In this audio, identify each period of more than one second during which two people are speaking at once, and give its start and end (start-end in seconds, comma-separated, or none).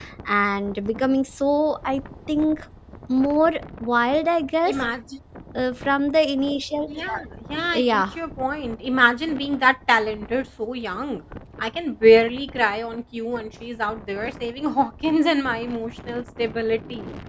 none